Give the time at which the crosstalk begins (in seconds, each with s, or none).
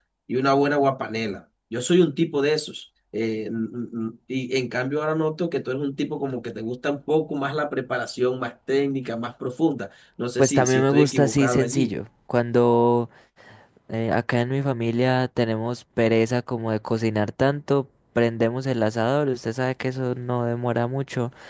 10.4 s